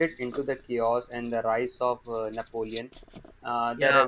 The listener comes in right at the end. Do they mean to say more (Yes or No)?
No